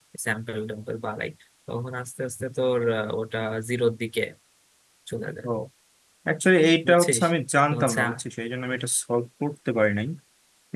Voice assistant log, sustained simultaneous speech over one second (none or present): none